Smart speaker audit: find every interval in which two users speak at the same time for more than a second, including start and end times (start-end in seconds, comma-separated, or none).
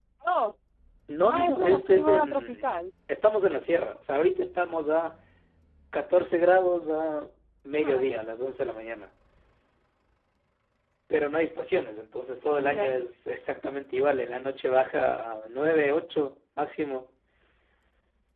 1.3-2.7